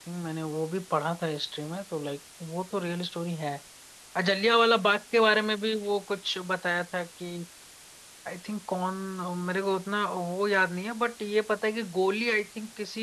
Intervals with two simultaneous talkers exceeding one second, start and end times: none

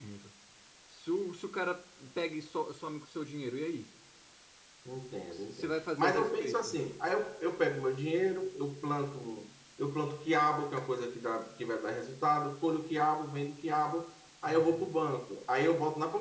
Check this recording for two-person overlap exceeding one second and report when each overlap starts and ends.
5.3-6.7

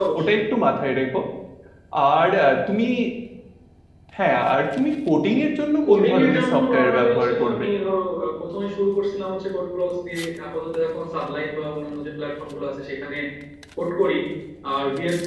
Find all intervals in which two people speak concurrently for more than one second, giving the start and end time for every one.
5.8-7.6

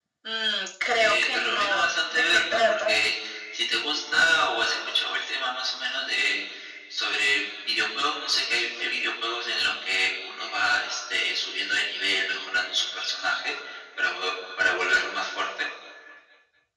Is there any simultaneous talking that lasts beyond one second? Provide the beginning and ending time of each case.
1.0-2.9

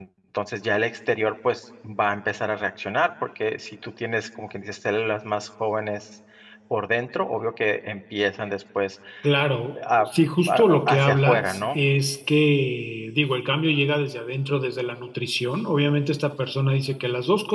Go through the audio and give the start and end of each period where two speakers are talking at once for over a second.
10.5-11.8

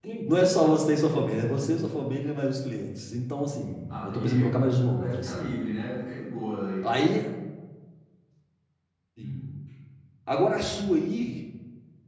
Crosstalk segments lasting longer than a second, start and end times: 3.9-5.5

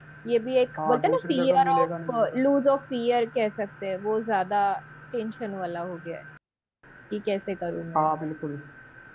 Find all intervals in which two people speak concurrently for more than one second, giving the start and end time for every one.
0.8-2.4

